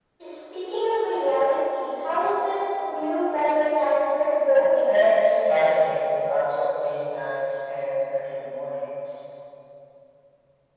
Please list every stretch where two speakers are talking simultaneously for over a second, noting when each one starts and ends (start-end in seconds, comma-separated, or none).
none